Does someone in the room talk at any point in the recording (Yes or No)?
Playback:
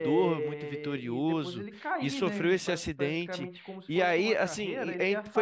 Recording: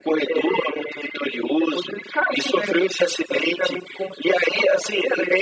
No